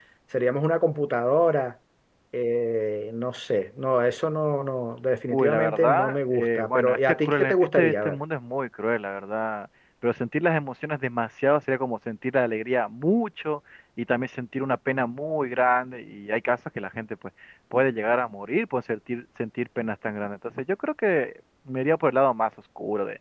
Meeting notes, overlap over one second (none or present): present